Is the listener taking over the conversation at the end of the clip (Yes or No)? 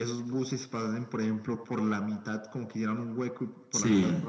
No